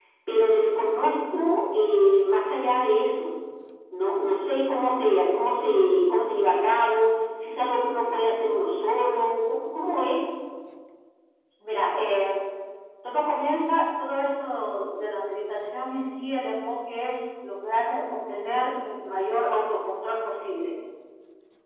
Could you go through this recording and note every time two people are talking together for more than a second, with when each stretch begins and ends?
none

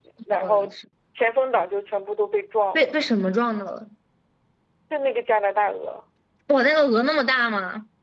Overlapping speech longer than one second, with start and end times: none

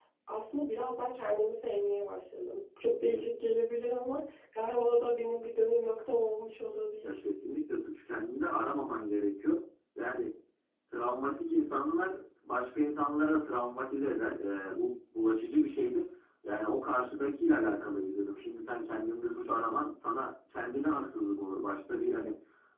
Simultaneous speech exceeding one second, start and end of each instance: none

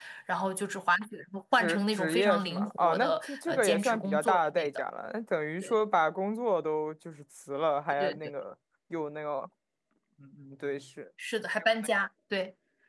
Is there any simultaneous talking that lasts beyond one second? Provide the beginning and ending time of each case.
1.6-4.7

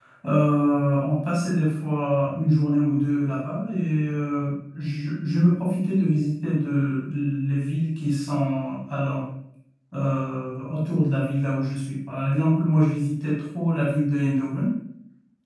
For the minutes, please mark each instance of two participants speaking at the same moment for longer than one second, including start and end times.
none

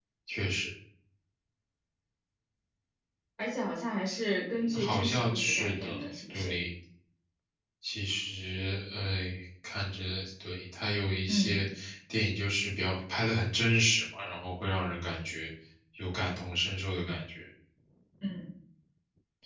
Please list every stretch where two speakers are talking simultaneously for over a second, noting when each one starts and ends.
4.5-6.5

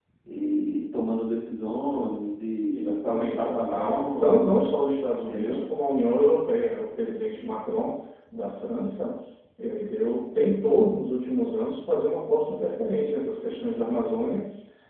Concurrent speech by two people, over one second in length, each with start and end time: 2.7-4.6

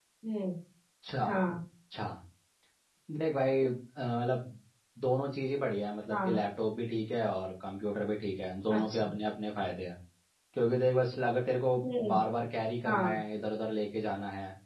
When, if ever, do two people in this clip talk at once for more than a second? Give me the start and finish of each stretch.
none

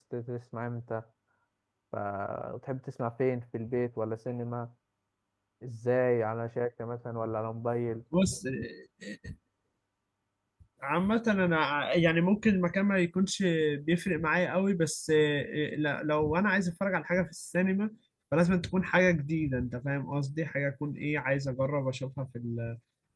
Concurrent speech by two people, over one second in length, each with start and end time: none

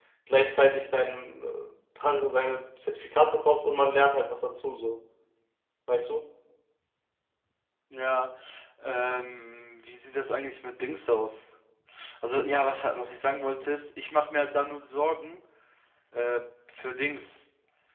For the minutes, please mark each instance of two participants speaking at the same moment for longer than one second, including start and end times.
none

